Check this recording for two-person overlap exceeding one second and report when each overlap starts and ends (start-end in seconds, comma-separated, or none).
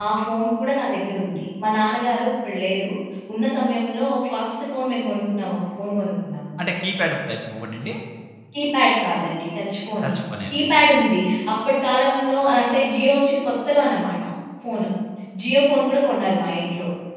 none